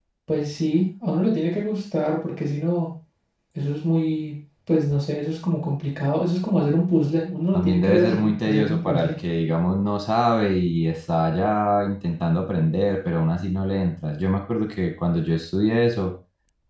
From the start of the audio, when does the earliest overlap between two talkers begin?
7.5 s

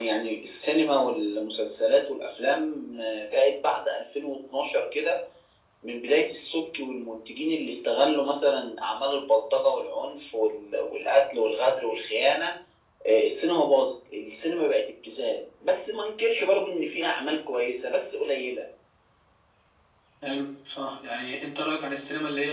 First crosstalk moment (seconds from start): none

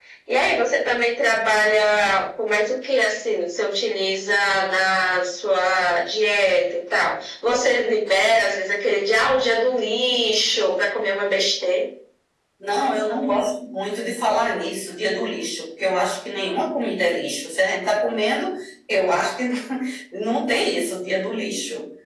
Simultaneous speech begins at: none

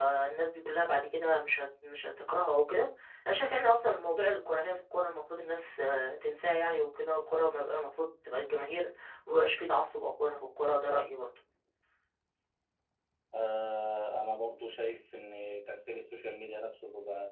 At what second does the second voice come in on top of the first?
none

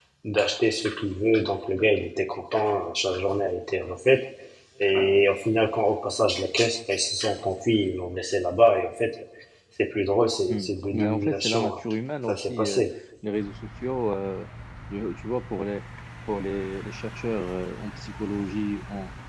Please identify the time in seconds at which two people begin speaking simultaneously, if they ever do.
10.5 s

